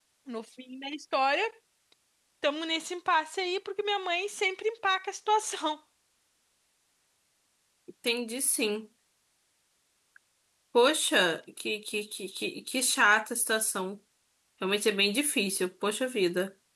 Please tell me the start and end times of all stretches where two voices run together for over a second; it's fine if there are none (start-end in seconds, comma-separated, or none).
none